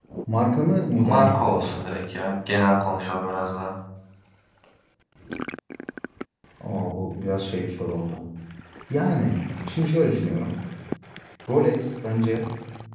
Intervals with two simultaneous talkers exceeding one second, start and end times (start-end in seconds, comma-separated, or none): none